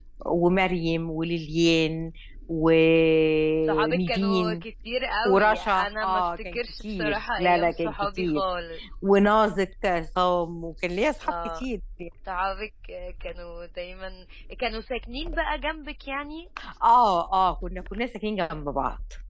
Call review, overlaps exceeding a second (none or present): present